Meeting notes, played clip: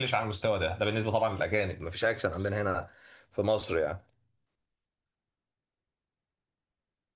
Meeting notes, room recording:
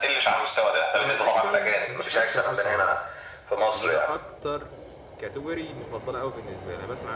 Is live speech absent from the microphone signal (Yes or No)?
No